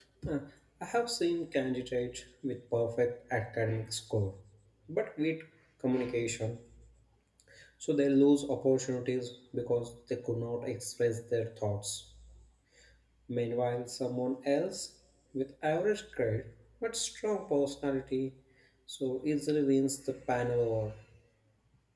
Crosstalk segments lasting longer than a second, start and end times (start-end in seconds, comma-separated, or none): none